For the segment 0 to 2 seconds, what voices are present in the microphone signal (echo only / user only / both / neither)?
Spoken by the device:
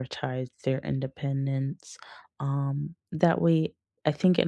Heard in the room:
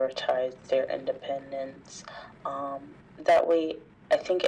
echo only